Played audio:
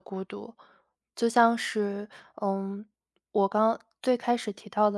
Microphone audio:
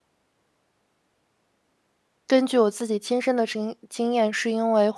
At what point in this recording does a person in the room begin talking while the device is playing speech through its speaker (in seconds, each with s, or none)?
2.3 s